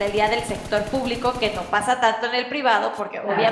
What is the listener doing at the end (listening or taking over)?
listening